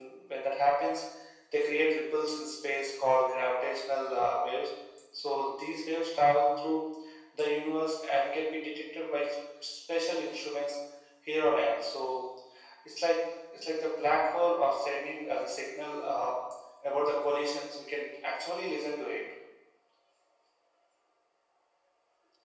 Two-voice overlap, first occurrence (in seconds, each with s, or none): none